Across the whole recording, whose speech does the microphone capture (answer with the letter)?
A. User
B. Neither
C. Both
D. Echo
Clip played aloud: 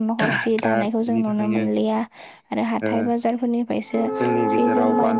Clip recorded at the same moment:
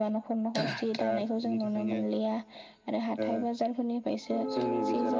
D